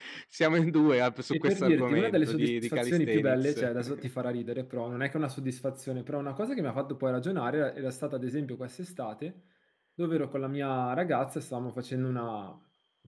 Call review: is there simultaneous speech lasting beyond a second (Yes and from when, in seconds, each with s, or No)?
Yes, from 1.3 s